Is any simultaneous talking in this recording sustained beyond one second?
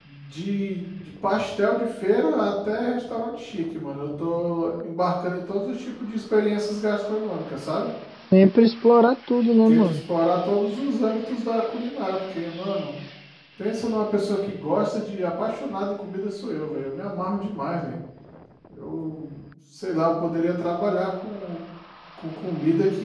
No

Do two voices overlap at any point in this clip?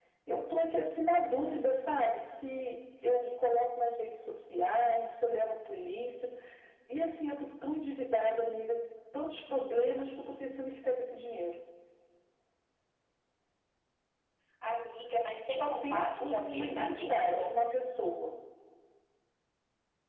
Yes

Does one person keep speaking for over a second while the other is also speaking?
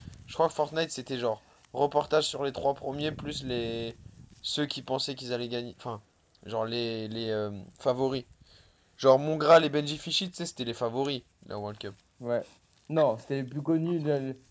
No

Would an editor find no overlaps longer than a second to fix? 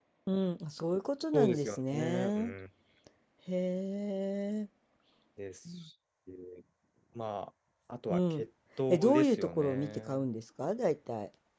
No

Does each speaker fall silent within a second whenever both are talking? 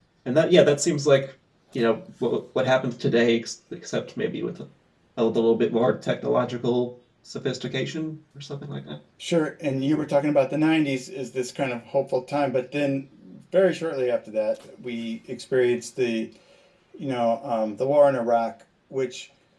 Yes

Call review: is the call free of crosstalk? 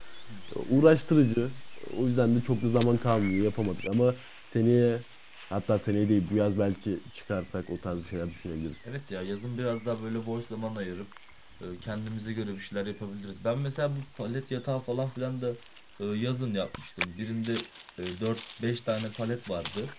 Yes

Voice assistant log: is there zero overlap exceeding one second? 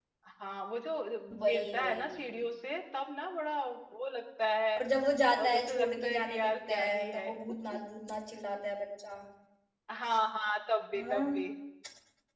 No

